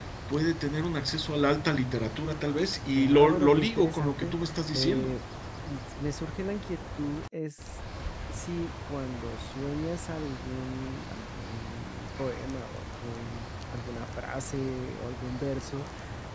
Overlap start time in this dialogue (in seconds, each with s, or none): 2.9 s